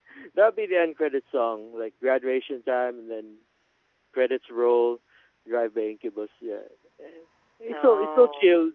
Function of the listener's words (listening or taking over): listening